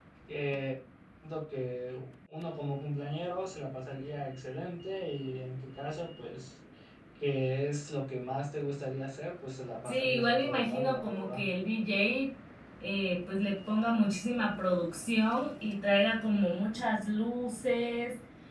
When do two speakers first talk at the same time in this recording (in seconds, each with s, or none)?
9.8 s